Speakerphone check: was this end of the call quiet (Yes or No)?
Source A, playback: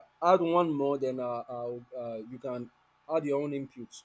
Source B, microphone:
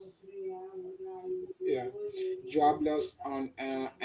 No